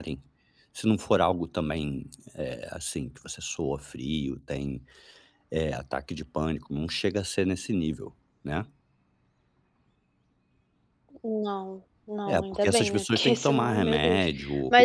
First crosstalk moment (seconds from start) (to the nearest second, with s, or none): 12 s